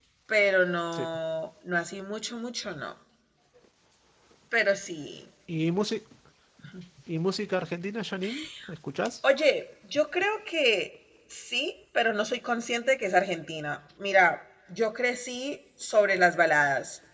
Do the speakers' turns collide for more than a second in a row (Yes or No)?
No